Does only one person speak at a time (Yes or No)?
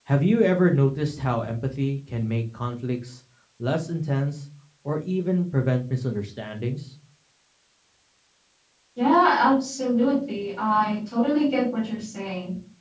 Yes